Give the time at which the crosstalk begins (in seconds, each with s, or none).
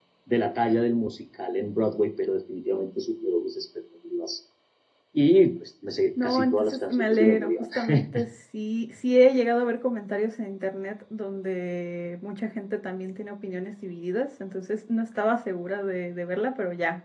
6.2 s